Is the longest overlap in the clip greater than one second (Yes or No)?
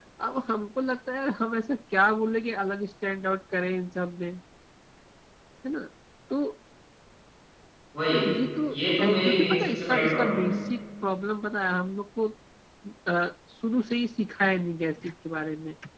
Yes